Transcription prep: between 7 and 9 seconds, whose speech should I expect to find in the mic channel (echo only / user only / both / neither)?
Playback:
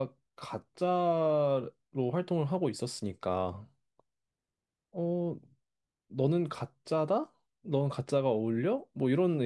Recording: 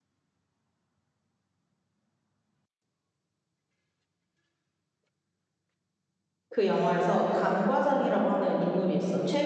user only